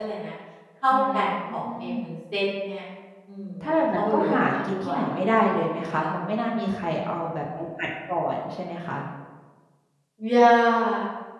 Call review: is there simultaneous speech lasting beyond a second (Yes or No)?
Yes